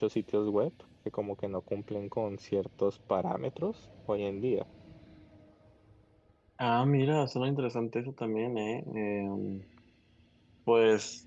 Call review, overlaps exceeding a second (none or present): none